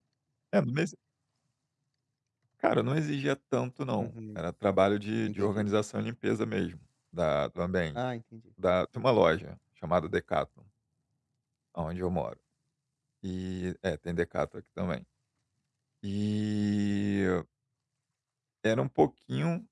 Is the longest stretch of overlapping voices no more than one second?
Yes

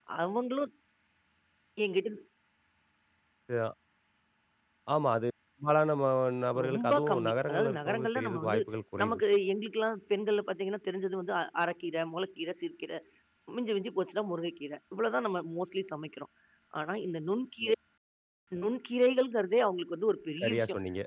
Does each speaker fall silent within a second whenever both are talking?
No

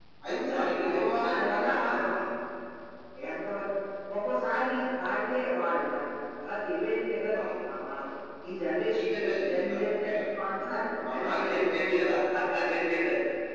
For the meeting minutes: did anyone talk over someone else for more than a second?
Yes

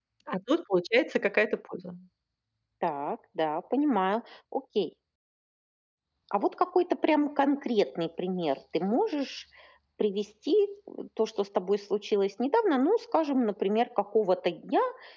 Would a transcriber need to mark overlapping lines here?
No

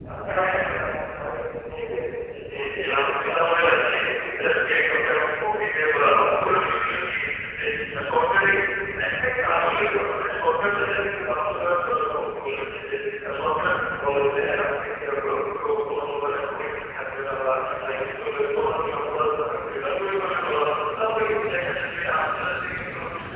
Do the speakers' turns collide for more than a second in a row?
Yes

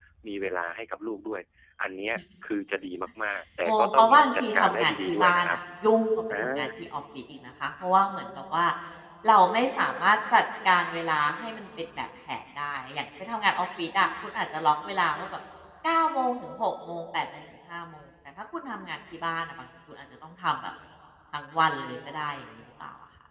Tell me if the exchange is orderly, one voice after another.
No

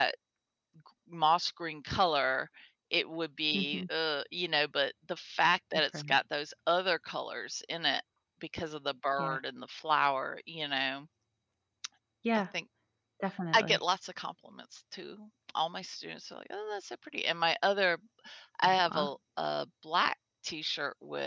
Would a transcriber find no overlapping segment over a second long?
Yes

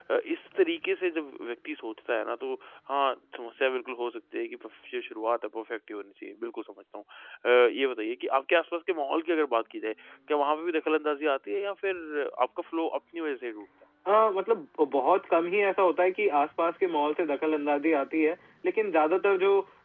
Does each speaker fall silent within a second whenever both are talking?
Yes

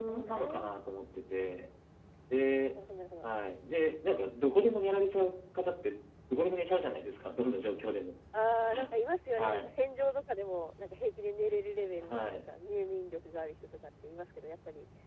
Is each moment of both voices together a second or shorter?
Yes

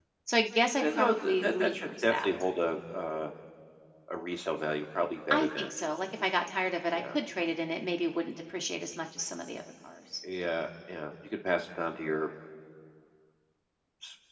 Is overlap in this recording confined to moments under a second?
No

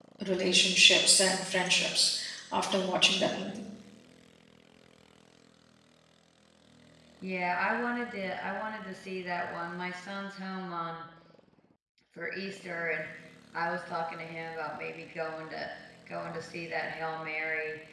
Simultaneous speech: No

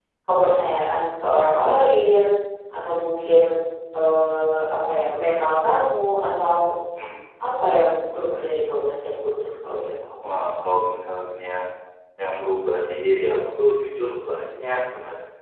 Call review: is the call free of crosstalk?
Yes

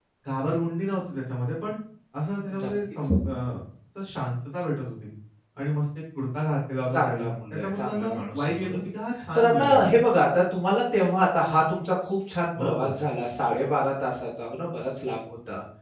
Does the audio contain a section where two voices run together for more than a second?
Yes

